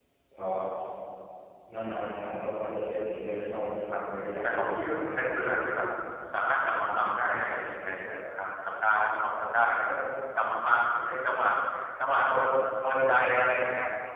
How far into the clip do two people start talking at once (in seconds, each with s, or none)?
4.4 s